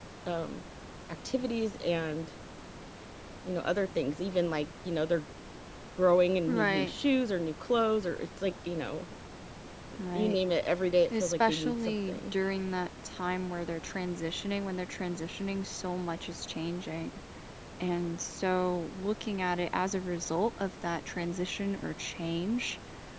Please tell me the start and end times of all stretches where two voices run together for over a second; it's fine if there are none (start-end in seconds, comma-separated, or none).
11.1-12.3